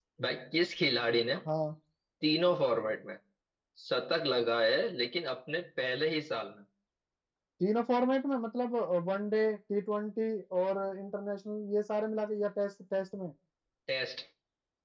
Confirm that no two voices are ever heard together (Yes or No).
Yes